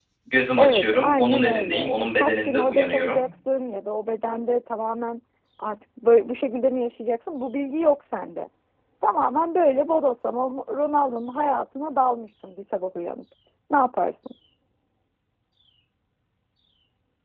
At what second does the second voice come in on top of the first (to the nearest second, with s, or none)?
1 s